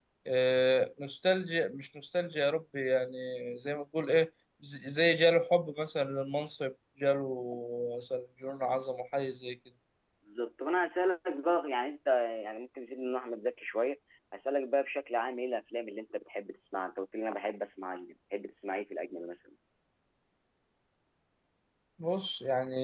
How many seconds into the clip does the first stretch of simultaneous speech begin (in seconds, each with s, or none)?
none